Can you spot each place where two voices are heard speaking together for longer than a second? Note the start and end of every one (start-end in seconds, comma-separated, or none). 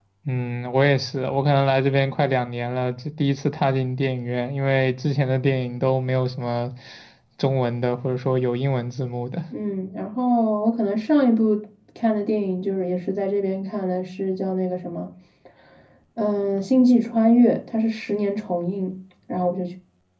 none